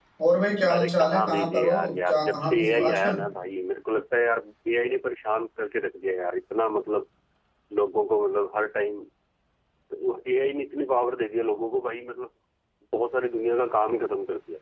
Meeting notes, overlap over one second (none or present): present